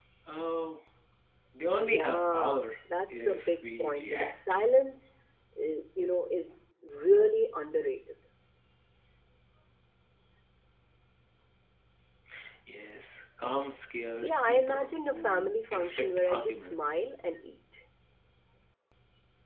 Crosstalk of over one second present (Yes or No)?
Yes